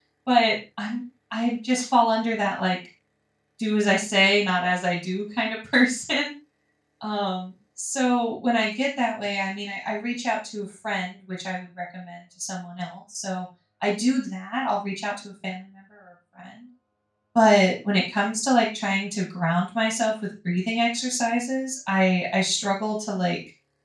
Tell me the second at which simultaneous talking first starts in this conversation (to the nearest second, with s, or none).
none